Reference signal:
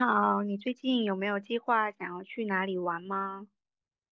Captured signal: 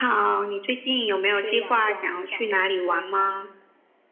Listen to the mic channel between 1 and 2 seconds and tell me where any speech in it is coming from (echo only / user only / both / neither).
both